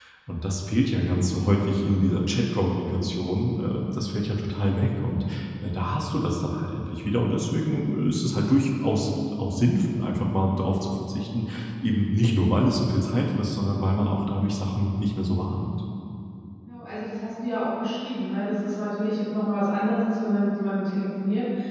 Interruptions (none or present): none